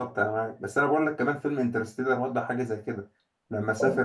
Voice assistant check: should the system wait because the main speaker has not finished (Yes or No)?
No